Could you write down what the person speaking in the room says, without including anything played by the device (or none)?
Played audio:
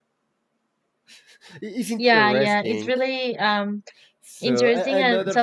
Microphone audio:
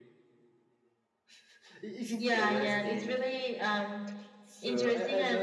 none